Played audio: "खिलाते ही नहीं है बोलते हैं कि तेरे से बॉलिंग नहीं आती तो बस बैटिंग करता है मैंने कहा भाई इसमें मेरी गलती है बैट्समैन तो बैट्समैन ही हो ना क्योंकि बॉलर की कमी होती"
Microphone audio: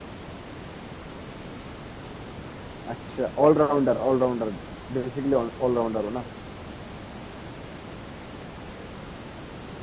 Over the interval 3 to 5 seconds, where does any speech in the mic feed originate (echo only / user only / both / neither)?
user only